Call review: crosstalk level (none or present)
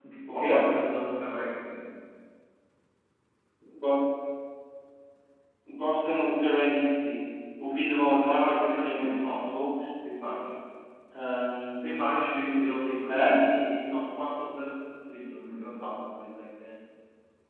present